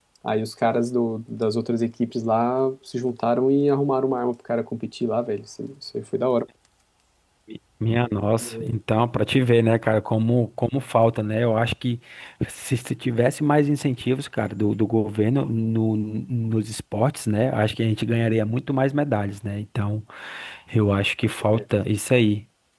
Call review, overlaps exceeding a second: none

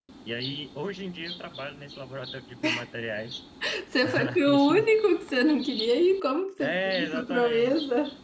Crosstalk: present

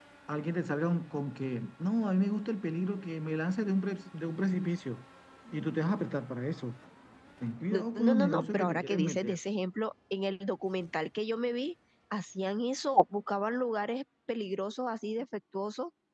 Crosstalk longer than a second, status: present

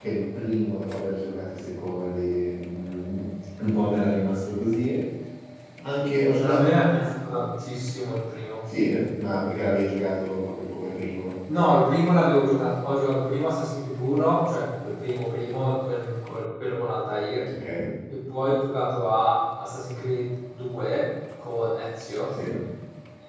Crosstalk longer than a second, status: none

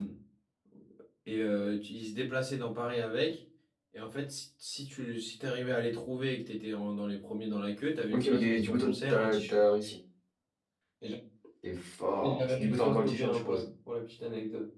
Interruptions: present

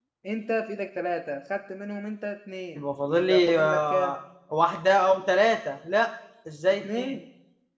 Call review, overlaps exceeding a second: present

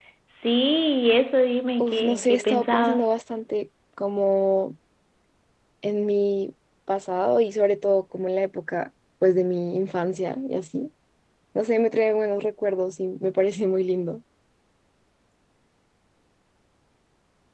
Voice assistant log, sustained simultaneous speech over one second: present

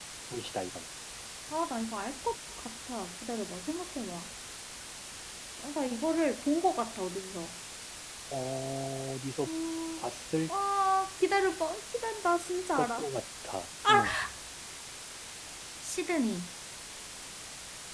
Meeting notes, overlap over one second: none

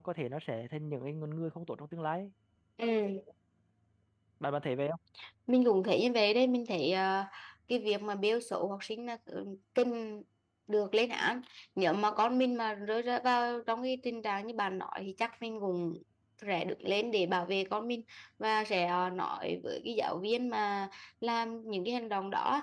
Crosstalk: none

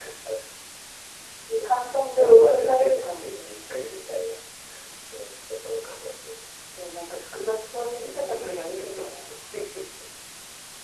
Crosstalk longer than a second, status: present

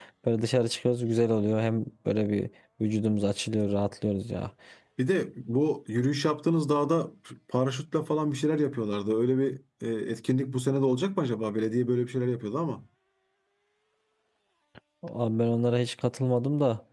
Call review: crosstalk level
none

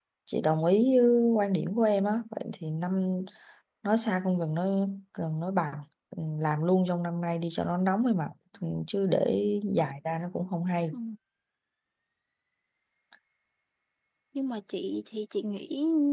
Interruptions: none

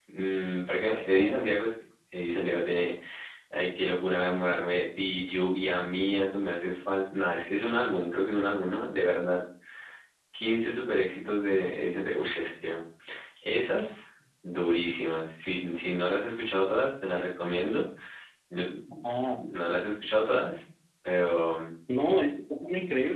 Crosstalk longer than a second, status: none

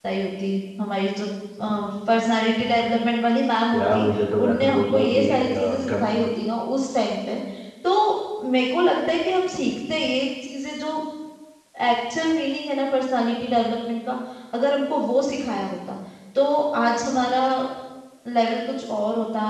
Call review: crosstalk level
present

